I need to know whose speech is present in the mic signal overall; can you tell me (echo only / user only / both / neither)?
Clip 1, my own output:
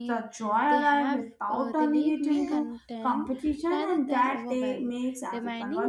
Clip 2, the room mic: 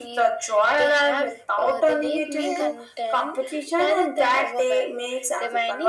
echo only